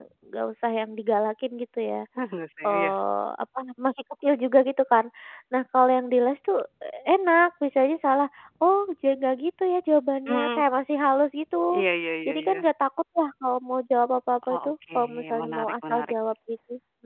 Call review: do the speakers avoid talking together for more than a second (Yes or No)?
No